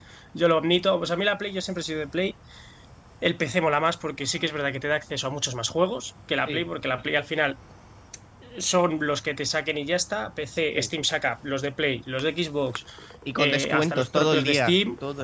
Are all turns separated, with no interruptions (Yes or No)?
No